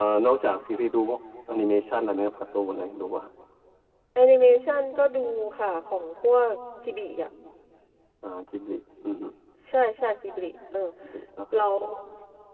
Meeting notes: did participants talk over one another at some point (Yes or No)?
No